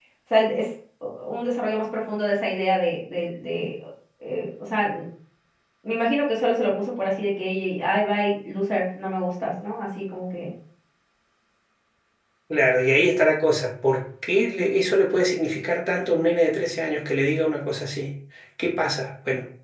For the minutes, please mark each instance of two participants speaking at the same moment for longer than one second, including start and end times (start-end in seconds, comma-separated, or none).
none